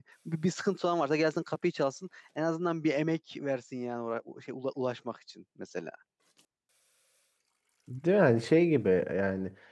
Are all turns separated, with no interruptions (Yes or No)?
Yes